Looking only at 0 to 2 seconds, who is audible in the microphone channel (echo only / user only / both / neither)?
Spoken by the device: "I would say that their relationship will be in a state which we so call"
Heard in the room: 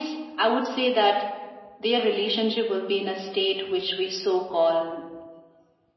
echo only